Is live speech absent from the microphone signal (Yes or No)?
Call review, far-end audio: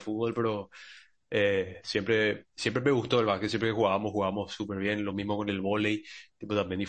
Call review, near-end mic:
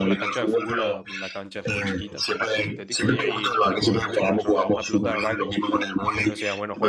No